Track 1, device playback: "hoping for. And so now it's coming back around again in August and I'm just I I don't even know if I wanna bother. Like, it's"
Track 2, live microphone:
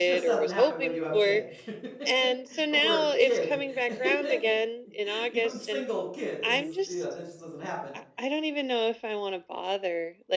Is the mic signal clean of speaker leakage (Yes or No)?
No